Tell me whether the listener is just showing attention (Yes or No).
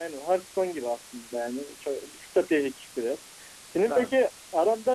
Yes